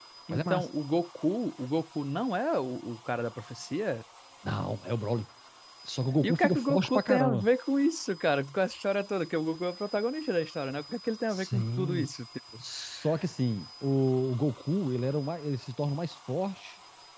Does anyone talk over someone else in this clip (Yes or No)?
Yes